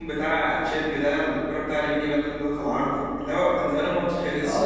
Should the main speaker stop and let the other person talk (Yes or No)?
Yes